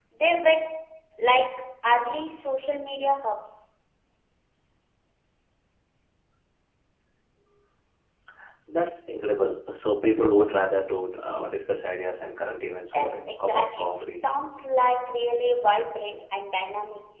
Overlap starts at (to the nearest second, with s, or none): 13 s